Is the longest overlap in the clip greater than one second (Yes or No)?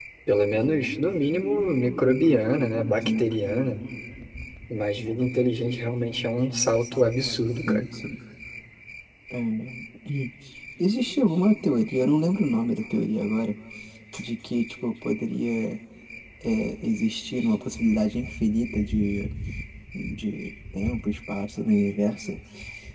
No